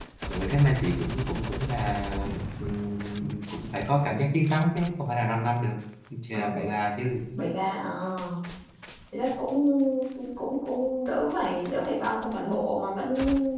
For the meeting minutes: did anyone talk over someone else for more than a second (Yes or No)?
No